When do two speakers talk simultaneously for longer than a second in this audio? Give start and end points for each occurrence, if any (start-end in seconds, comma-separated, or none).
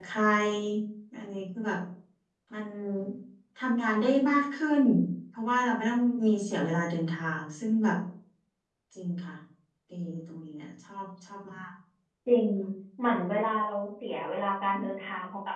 none